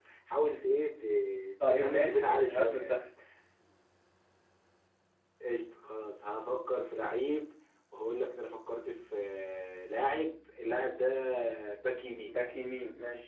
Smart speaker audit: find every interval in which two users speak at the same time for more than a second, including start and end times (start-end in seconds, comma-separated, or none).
1.6-3.0